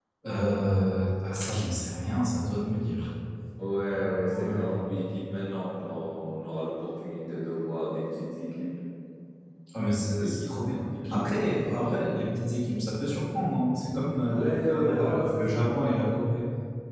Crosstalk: present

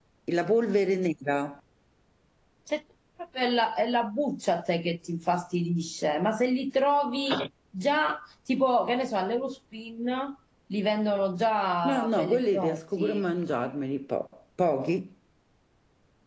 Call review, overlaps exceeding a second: present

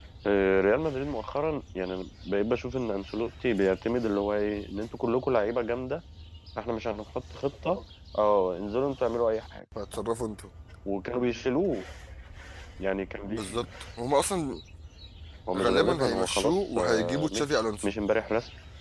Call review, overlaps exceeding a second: present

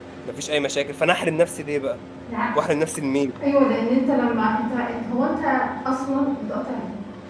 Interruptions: none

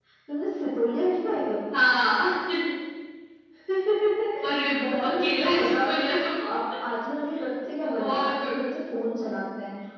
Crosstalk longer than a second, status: present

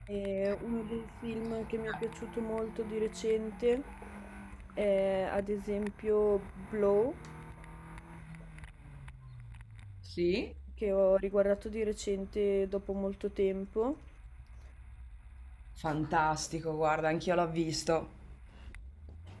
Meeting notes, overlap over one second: none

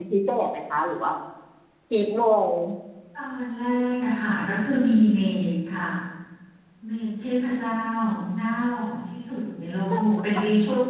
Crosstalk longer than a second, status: none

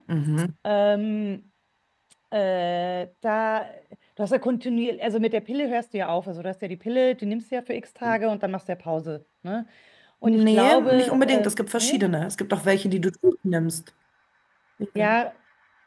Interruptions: present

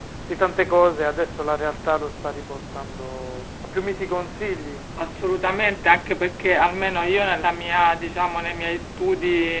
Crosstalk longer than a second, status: none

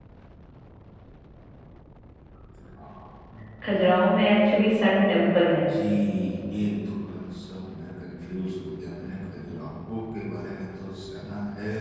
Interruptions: none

